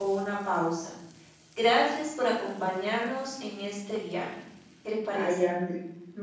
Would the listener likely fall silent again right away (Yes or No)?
No